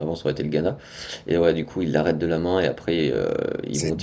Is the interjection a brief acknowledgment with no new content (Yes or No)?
No